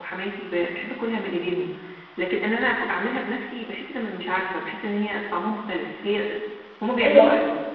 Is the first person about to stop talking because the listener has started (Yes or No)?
Yes